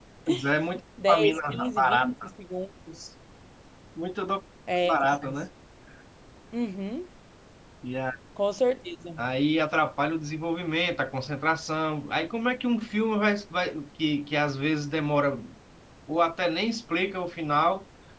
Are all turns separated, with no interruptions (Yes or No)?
No